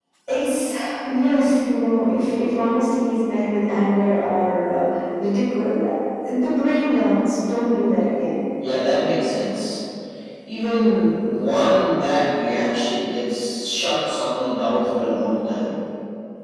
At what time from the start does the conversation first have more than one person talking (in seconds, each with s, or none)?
none